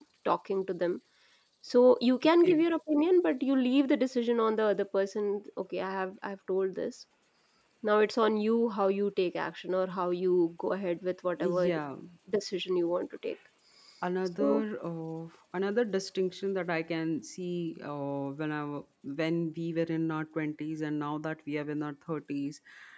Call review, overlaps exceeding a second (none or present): none